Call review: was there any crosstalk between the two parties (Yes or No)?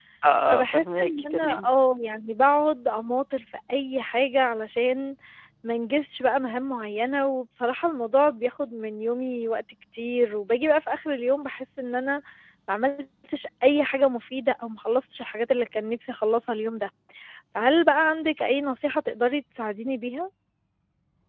Yes